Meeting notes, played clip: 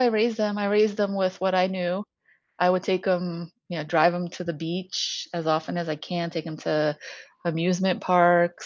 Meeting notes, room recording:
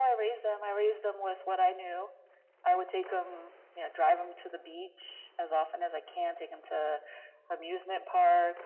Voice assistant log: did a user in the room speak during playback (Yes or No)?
No